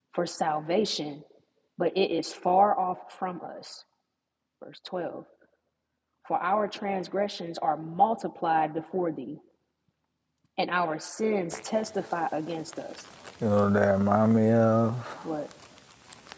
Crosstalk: none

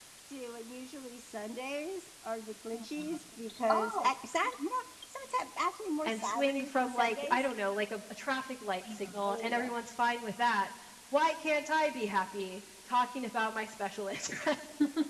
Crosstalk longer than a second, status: present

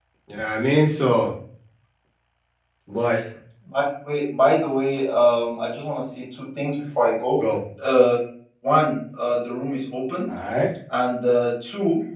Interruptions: none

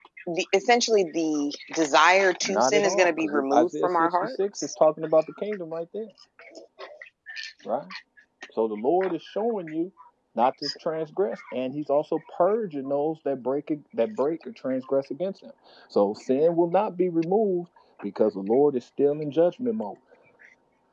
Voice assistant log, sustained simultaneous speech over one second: present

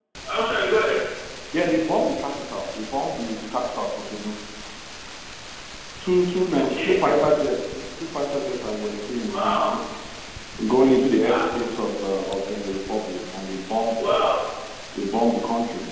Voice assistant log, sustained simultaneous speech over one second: none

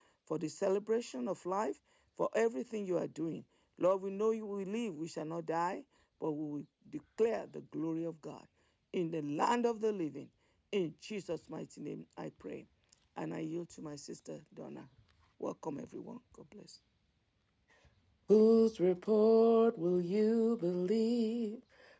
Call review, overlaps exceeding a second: none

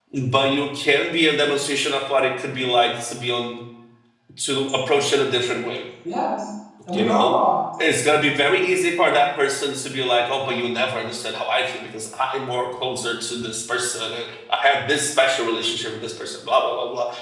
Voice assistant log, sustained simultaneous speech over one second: none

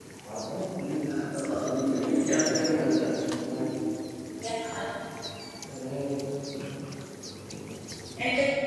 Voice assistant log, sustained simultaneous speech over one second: present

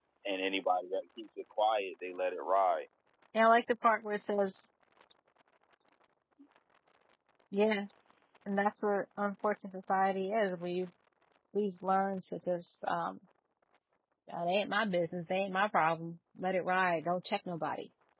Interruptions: none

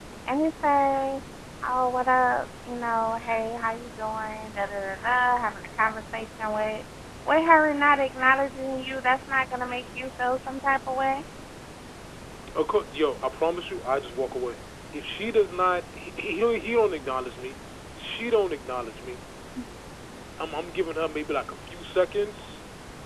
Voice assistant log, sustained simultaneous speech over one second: none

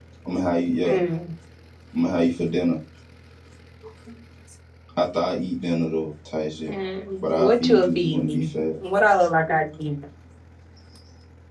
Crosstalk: present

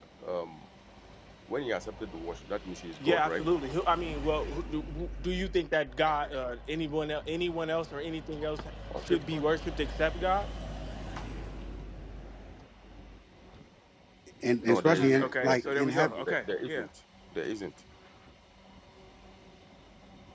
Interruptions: present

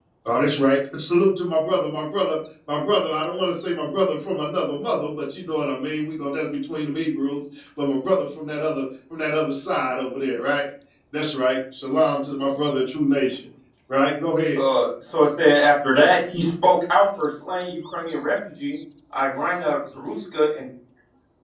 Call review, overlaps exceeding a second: none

